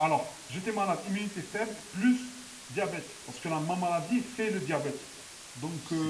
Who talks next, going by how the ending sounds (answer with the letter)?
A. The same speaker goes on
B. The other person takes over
A